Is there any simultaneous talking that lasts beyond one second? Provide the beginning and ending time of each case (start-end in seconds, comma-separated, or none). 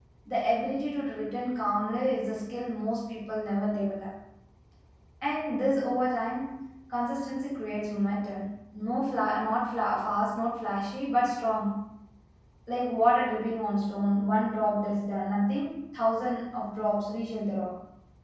none